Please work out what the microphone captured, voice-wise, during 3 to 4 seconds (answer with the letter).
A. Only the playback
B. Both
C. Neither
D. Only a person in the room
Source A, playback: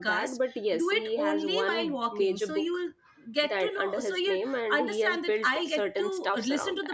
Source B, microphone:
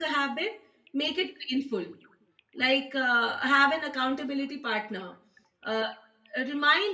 D